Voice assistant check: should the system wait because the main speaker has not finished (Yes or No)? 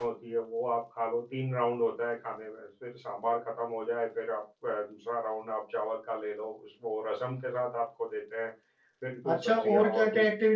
No